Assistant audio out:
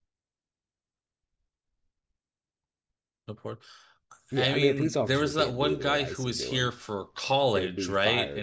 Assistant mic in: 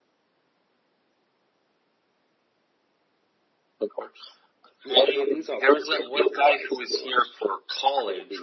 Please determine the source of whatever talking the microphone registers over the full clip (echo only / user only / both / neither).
echo only